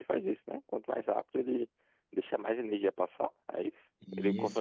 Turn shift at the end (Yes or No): Yes